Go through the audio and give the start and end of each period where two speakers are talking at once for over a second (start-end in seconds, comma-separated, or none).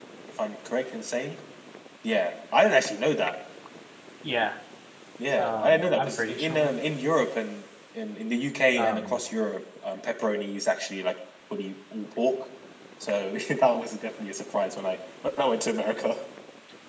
5.4-6.7